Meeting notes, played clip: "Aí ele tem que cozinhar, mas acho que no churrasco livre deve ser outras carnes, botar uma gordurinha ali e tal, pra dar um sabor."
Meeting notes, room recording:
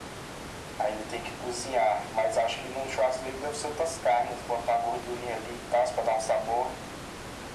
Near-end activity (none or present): none